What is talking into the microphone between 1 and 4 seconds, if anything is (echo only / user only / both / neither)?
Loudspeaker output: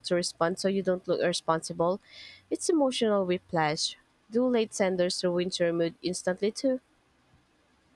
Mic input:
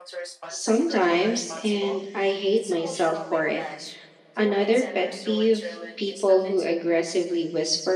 both